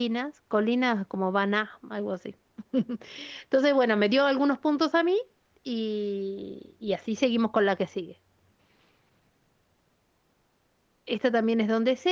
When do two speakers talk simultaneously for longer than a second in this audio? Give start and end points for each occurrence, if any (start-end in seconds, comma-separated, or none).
none